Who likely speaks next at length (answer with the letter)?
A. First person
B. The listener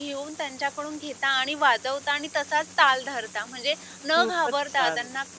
A